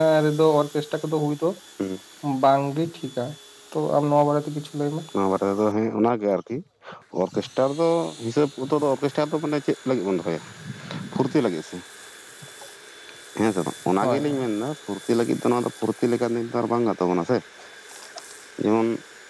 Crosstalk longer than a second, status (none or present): none